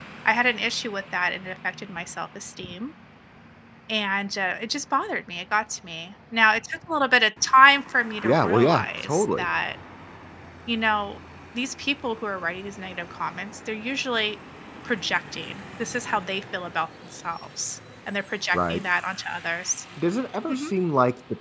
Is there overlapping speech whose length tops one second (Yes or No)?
Yes